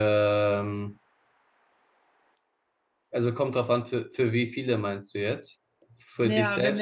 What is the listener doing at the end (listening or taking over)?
taking over